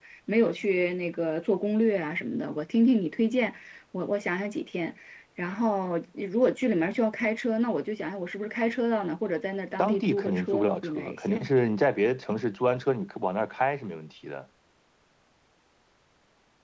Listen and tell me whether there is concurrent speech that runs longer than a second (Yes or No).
Yes